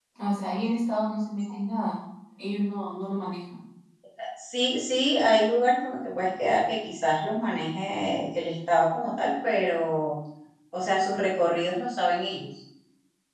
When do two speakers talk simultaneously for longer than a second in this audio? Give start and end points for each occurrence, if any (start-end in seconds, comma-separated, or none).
none